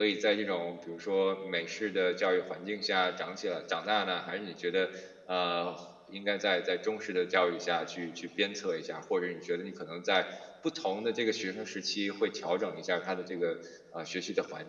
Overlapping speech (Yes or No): No